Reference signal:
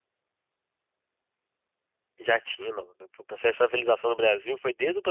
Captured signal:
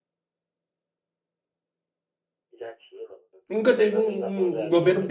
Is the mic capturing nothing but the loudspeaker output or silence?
No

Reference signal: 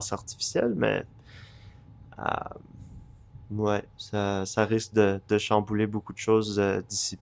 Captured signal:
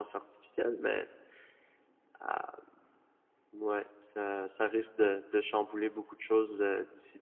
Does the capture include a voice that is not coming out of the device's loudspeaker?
No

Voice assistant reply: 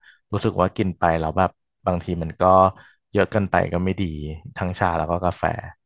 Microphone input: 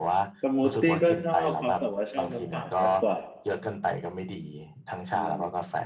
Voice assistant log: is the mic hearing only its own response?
No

